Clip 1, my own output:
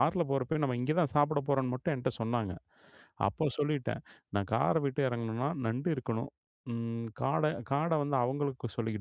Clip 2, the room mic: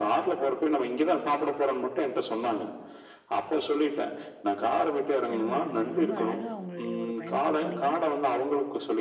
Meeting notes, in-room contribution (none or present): present